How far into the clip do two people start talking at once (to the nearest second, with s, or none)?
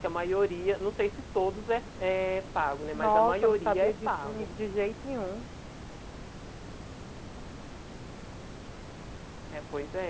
3 s